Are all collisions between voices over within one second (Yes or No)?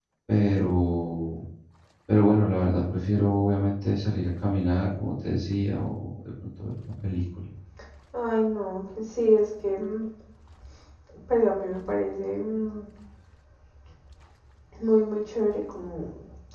Yes